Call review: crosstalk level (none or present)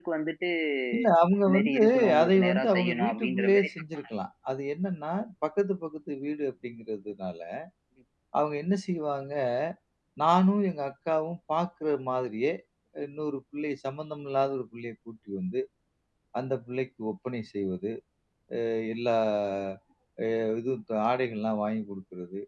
present